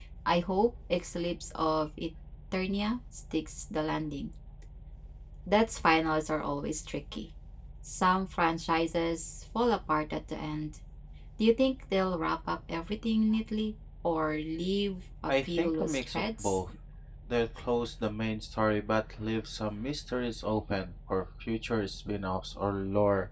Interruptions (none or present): present